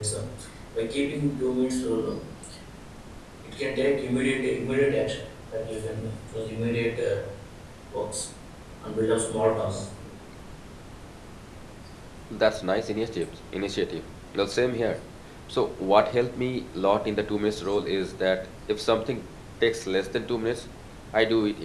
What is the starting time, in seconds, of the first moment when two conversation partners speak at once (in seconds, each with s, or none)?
none